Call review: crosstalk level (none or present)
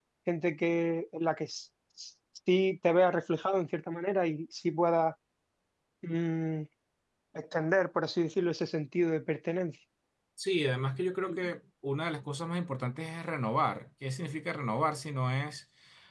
none